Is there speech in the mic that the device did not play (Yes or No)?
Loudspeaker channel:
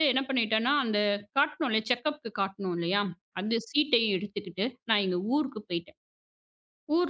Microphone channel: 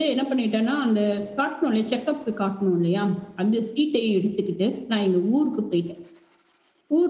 No